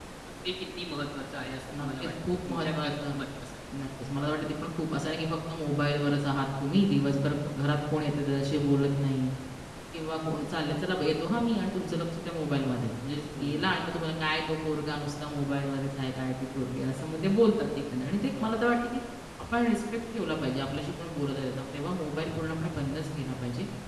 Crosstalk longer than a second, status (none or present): present